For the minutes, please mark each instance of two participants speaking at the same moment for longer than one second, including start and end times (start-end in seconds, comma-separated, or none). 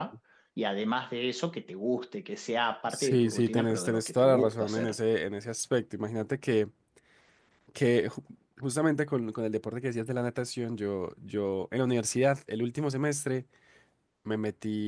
2.9-5.0